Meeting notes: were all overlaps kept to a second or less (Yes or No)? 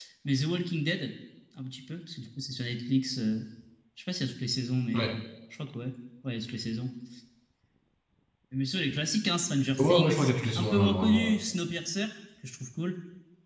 No